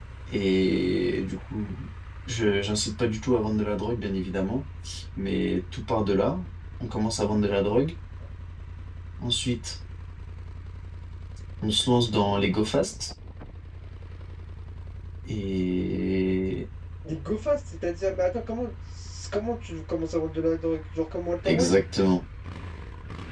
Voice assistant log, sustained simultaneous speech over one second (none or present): none